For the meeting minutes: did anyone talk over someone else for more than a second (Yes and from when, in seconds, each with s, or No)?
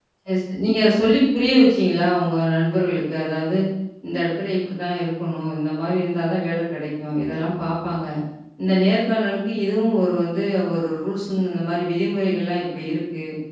No